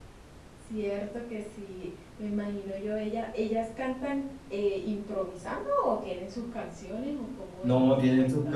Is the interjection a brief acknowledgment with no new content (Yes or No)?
No